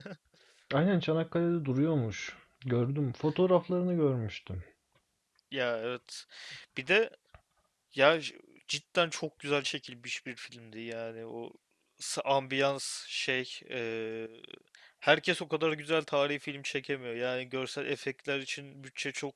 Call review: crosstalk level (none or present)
none